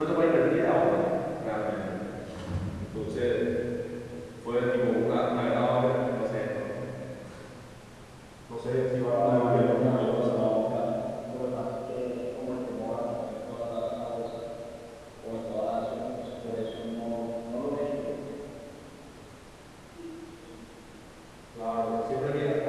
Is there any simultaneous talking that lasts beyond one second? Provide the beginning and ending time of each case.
9.1-10.4

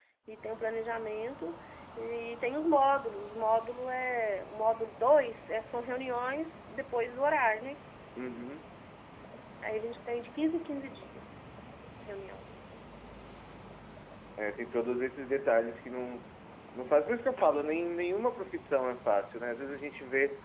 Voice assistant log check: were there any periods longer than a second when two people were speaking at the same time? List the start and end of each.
none

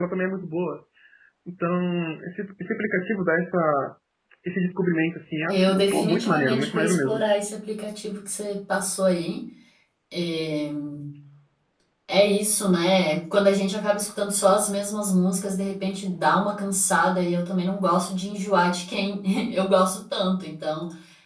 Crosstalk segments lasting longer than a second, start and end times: 5.5-7.2

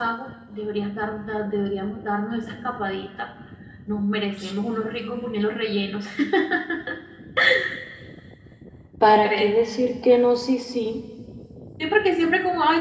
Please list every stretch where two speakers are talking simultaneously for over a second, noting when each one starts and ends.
none

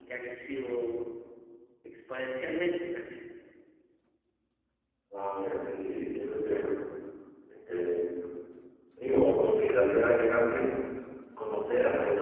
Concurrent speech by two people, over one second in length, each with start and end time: none

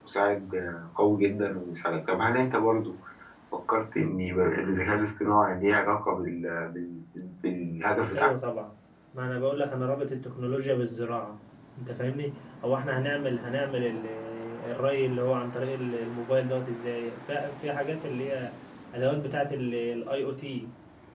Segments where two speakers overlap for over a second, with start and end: none

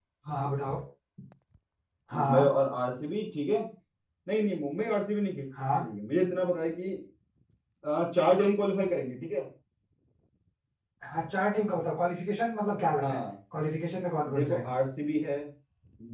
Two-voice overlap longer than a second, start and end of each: none

